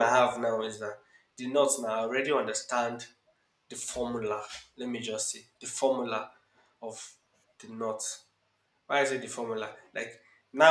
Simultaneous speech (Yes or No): No